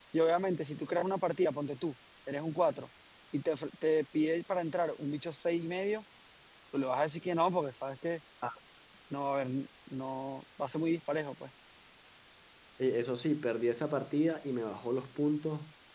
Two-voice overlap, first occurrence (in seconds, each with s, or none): none